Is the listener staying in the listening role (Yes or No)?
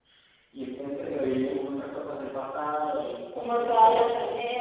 No